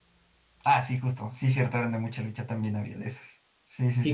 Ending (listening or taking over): taking over